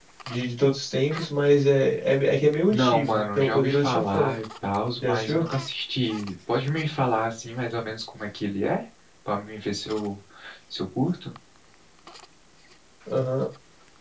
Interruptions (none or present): present